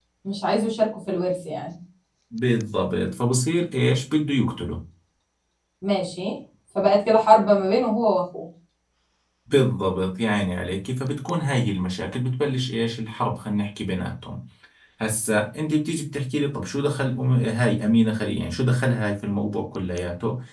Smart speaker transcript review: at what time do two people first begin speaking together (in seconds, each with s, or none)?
none